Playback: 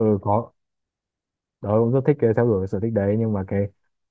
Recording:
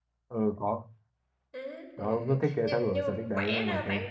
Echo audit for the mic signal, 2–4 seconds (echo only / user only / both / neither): both